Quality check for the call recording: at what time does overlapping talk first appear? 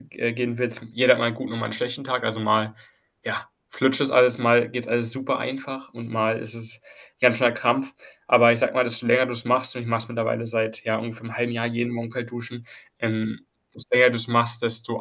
none

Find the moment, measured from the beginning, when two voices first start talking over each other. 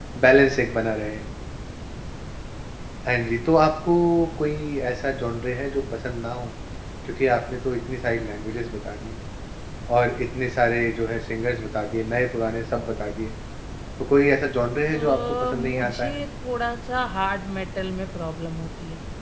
14.9 s

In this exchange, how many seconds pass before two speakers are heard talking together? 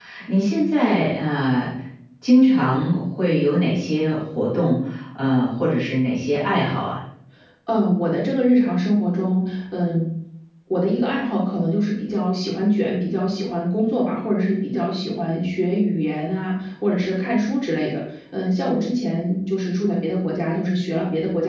none

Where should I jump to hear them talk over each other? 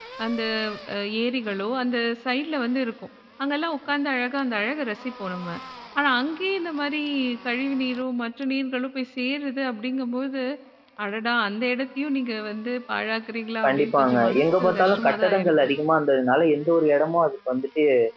13.6 s

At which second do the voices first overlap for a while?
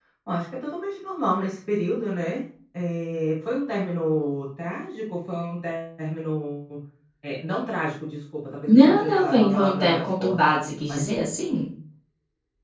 8.7 s

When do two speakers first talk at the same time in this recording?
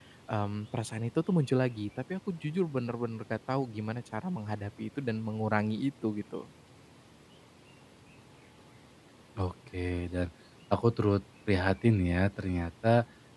none

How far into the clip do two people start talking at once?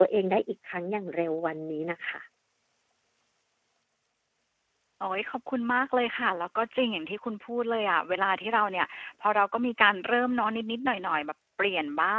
none

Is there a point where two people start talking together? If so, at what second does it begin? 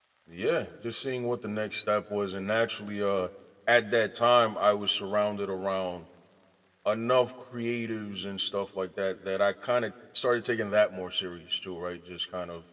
none

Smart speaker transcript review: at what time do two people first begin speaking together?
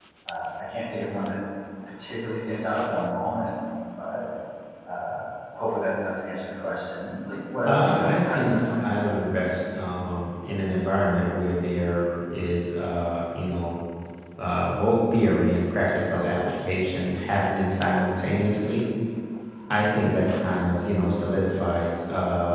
7.7 s

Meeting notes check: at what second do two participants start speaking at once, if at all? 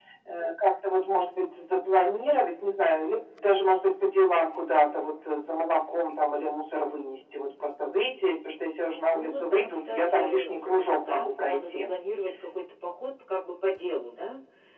8.8 s

